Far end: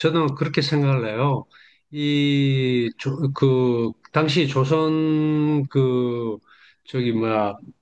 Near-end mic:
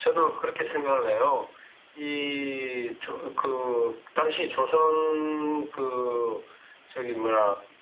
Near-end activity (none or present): none